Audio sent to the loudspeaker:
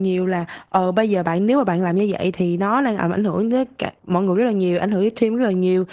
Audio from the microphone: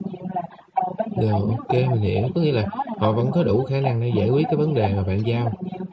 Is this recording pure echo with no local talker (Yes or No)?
No